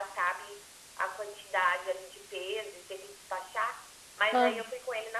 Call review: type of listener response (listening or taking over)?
listening